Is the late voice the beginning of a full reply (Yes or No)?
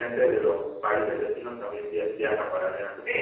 Yes